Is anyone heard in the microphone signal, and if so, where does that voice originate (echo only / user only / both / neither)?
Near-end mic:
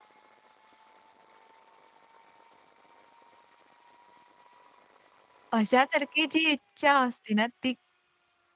user only